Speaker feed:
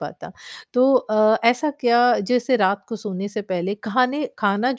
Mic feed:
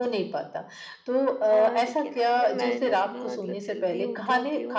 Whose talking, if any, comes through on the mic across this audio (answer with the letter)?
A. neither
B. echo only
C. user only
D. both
D